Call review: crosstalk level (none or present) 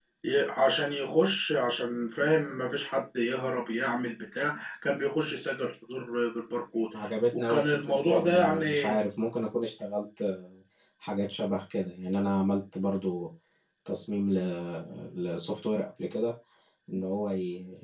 present